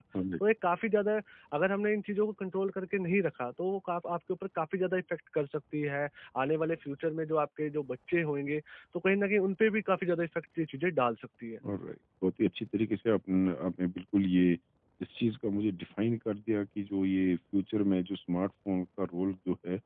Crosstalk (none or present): none